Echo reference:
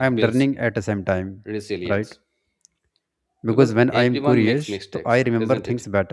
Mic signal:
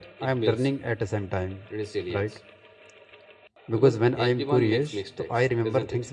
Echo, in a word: present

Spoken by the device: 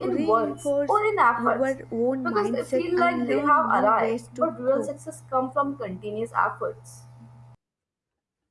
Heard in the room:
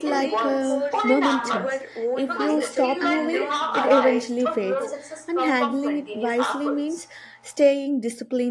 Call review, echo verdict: present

